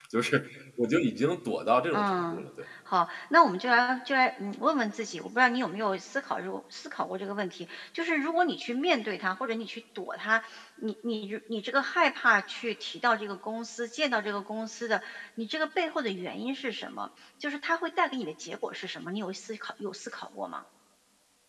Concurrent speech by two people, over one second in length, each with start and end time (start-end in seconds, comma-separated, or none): none